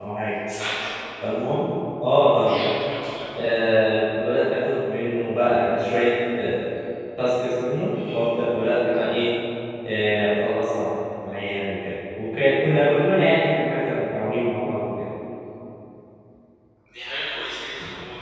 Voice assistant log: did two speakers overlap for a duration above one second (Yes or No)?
No